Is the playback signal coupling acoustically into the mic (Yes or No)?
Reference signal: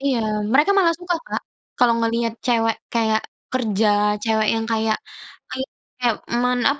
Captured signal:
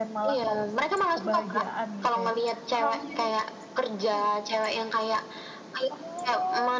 Yes